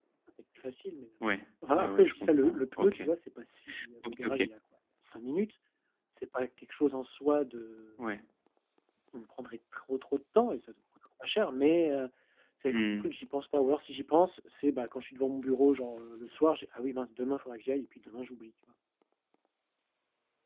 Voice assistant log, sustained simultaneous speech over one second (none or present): present